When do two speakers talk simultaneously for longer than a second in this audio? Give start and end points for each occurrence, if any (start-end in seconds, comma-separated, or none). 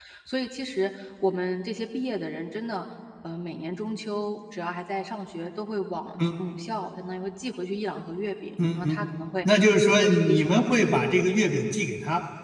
9.4-11.0